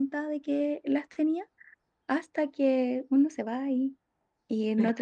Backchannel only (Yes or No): Yes